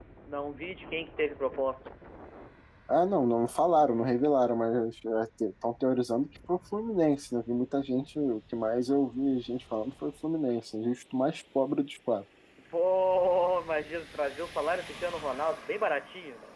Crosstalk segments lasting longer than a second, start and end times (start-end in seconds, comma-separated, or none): none